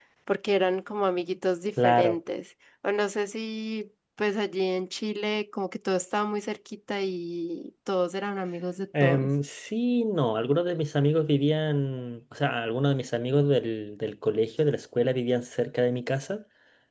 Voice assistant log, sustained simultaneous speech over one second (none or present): none